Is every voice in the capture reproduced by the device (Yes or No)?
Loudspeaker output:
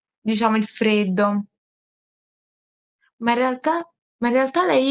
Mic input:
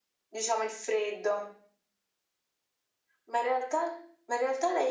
Yes